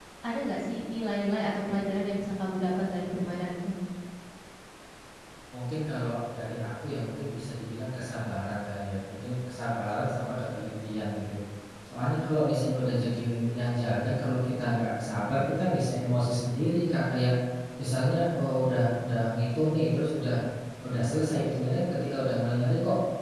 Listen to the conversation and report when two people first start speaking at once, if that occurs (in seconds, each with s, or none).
none